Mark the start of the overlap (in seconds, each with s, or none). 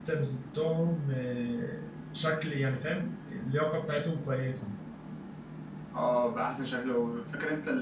none